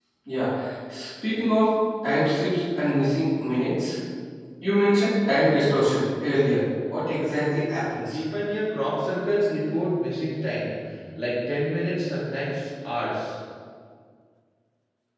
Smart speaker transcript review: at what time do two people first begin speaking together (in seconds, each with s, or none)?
none